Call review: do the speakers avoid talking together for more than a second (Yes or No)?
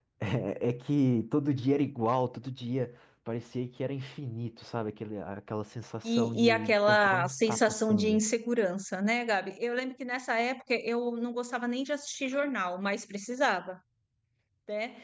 No